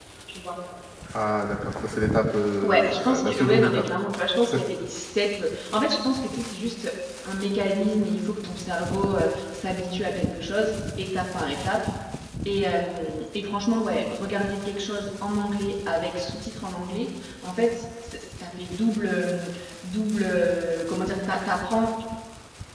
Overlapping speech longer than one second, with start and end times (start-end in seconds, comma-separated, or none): 2.6-3.8